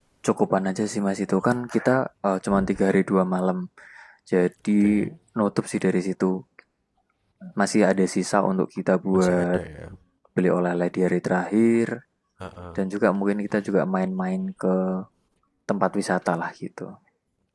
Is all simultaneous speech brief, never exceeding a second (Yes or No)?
Yes